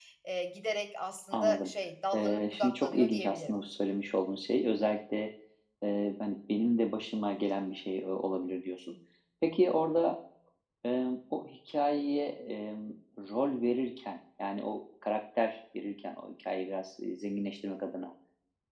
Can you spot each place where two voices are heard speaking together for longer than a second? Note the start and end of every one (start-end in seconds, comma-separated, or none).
2.1-3.5